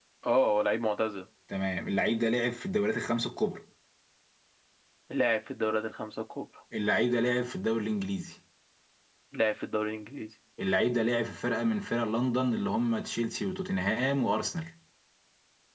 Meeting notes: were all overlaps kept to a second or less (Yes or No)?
Yes